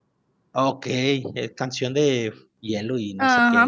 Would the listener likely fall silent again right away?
No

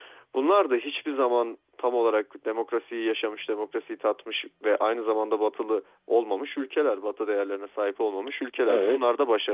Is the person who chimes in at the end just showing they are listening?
Yes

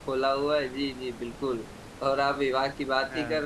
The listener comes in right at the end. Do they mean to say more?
No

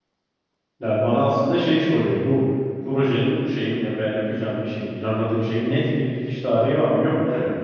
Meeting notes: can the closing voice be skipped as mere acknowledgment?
No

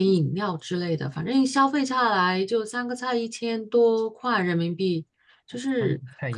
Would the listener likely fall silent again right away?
No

